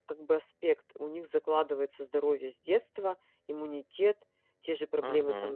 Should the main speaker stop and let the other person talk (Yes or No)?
No